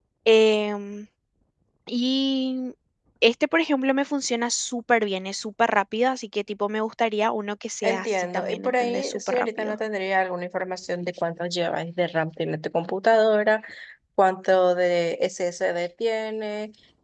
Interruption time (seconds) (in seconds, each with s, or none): 7.8 s